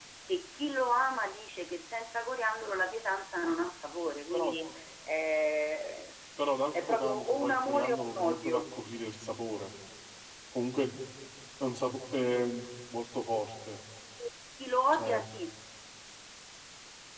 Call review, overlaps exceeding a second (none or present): present